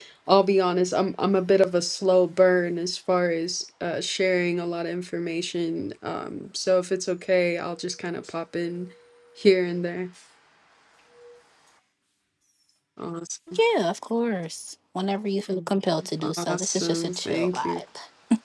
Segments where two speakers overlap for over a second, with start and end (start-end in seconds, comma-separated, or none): 16.5-17.8